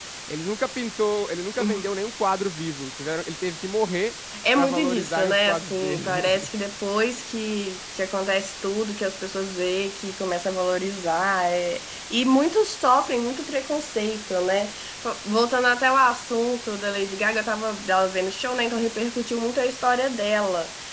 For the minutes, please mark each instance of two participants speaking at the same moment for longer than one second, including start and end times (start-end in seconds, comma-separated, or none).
4.6-6.5